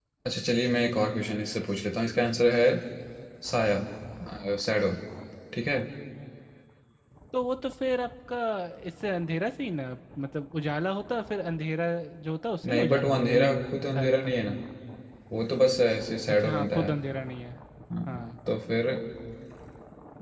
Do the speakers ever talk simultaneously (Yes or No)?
Yes